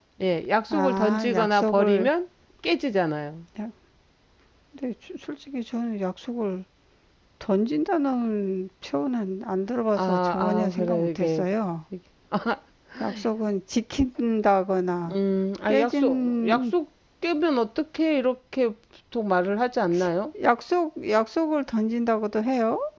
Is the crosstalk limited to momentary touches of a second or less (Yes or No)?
No